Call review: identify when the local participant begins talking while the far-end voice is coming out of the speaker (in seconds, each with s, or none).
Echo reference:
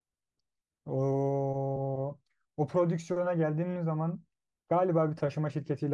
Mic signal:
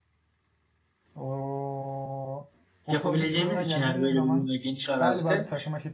2.9 s